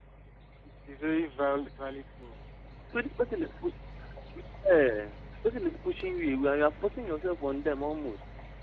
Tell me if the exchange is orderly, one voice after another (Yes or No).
Yes